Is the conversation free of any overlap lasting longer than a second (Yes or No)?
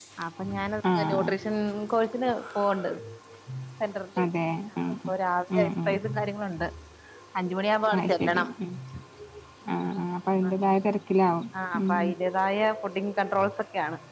Yes